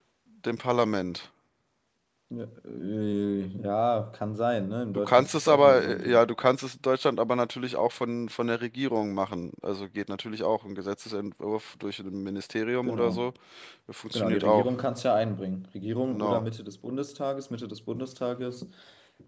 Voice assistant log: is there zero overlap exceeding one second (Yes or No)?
No